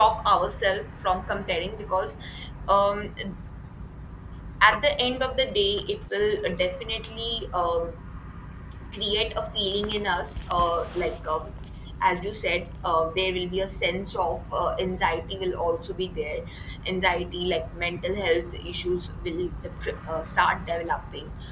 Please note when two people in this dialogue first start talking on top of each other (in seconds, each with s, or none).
none